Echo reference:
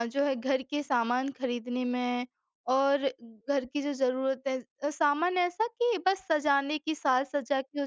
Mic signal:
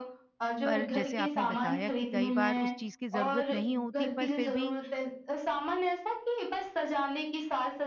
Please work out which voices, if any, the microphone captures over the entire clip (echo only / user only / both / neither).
both